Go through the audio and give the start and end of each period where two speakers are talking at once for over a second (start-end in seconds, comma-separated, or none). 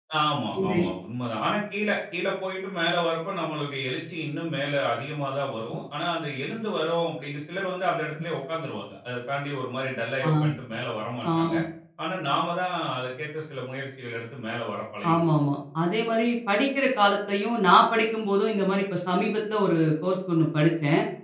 none